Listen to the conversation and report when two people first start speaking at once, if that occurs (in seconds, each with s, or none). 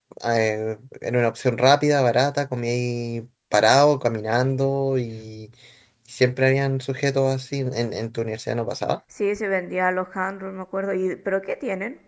none